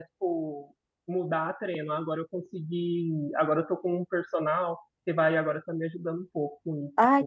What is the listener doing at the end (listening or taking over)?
taking over